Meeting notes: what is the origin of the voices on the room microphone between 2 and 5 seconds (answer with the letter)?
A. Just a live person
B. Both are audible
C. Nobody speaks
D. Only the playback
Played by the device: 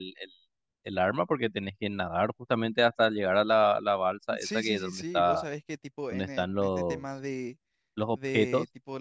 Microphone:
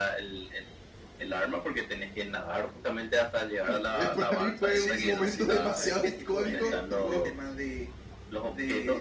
B